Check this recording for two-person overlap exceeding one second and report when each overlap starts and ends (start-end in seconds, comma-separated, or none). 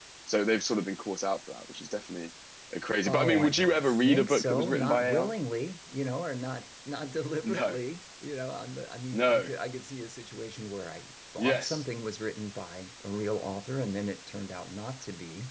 3.0-5.3